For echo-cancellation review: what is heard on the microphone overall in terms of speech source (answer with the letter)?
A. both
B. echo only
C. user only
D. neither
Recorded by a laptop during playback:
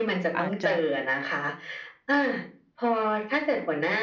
A